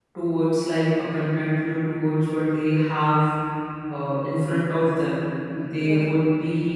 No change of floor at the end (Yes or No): Yes